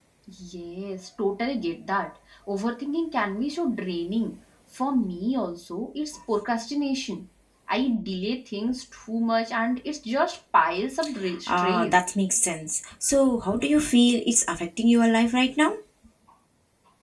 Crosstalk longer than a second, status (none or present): none